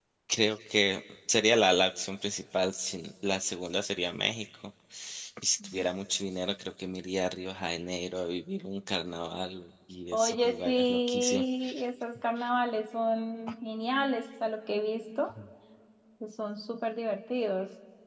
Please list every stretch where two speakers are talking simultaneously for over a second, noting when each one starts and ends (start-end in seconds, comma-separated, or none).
10.1-11.4